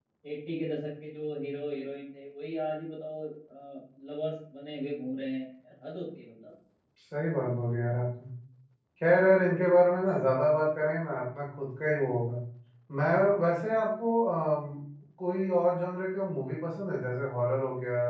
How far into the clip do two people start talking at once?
none

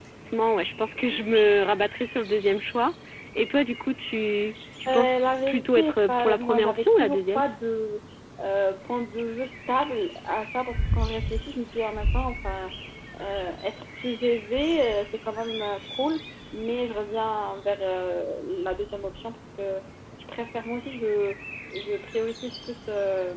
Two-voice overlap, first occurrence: 4.9 s

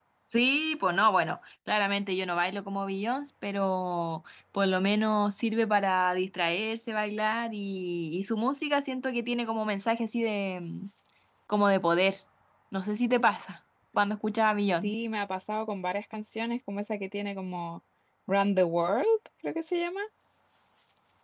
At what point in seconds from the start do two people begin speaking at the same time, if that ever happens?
none

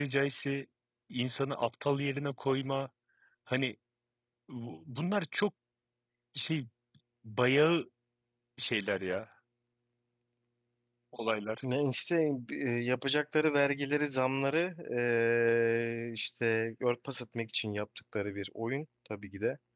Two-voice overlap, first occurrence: none

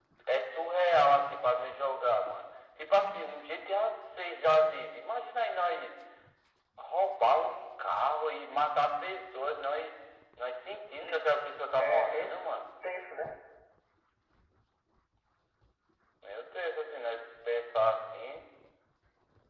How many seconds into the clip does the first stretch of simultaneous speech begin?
10.9 s

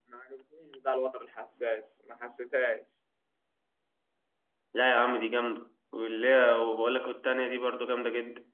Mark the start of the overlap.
none

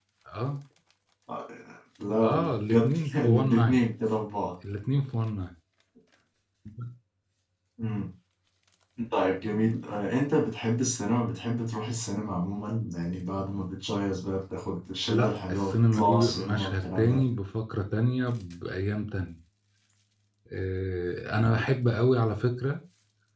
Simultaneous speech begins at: 2.2 s

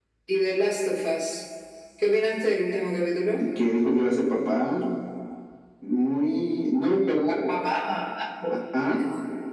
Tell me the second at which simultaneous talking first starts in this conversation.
none

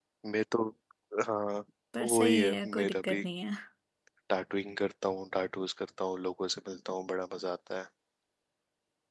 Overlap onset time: 2.0 s

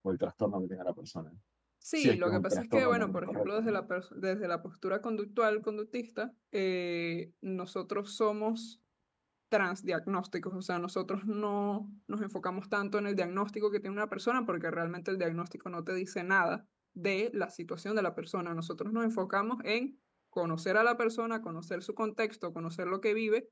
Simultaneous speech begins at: 2.0 s

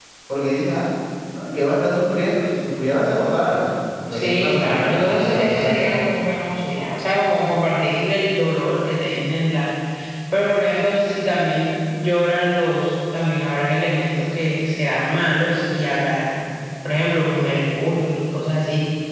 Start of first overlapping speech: 4.1 s

